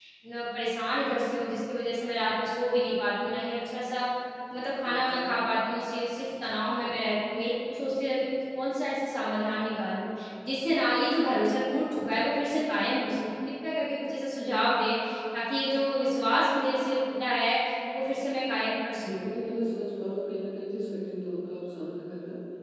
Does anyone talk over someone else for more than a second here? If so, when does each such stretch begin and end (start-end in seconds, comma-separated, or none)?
none